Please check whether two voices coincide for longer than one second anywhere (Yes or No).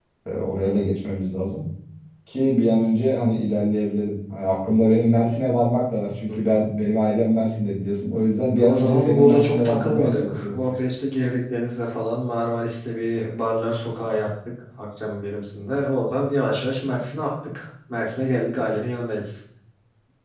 Yes